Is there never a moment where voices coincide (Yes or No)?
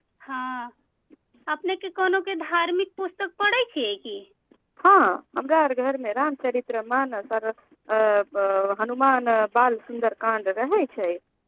Yes